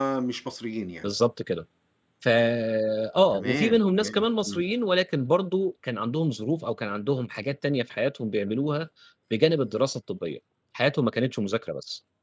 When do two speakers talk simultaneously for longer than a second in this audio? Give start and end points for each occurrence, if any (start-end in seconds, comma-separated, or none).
3.3-4.6